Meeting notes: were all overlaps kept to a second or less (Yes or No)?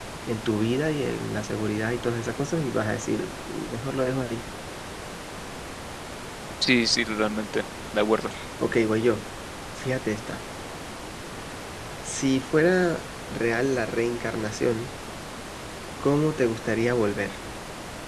Yes